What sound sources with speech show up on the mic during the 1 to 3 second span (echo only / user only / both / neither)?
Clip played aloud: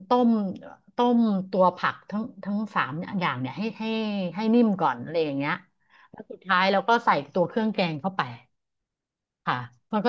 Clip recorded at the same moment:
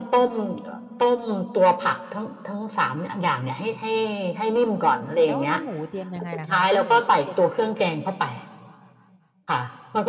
echo only